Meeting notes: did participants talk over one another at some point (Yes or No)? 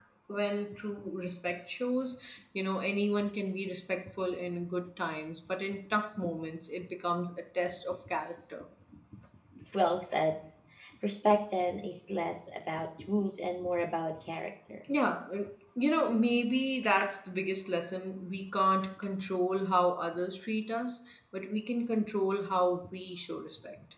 No